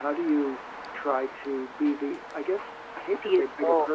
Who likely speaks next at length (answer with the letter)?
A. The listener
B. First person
B